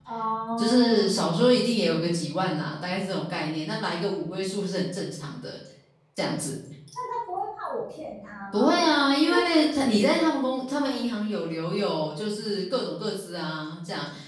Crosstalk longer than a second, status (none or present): none